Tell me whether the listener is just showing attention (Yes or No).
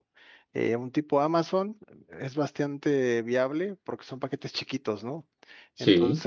Yes